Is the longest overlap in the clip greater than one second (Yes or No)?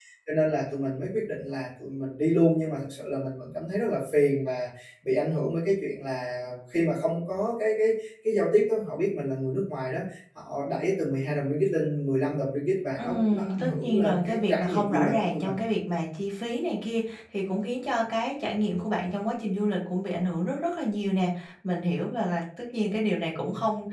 Yes